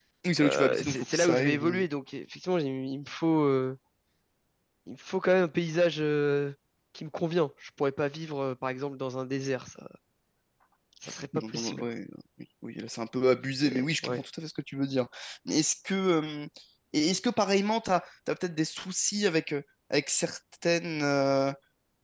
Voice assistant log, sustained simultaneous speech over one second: present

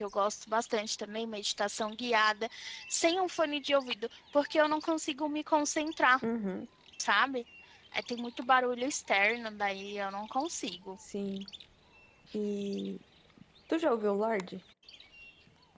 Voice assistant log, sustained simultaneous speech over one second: none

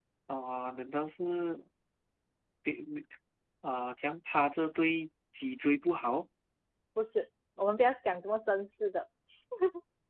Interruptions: none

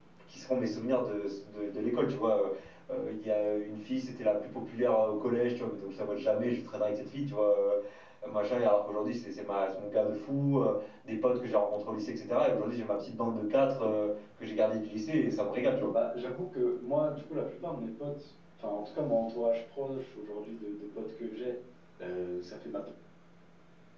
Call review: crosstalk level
none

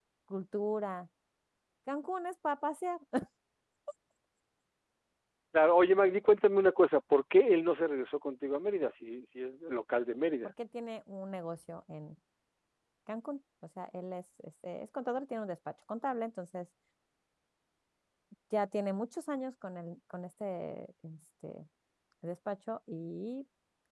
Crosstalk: none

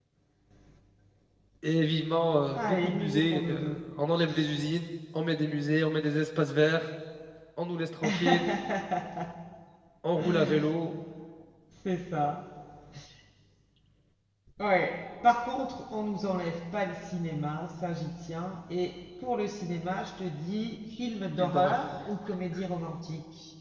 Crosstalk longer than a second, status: present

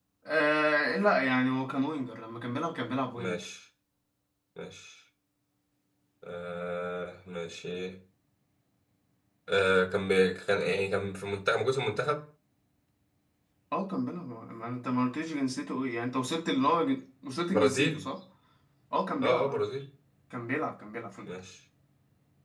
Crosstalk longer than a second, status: none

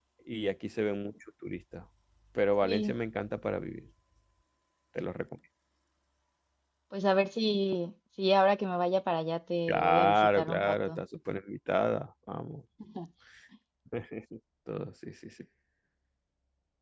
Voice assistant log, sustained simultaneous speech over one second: present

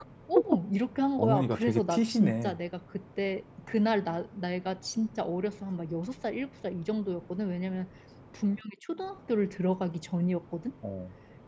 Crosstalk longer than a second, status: present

